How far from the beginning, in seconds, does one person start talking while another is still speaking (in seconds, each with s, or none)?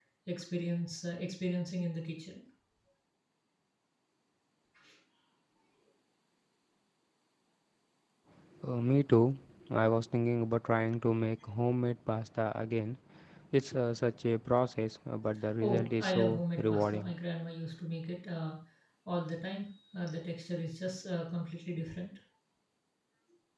15.6 s